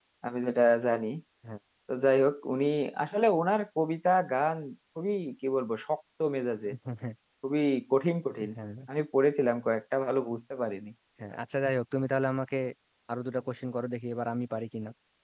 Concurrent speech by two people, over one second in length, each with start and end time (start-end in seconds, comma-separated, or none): none